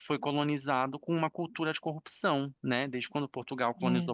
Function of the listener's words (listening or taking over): listening